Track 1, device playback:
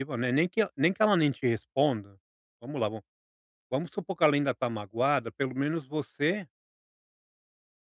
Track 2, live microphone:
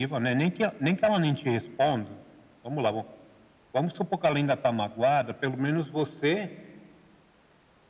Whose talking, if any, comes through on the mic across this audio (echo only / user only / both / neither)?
echo only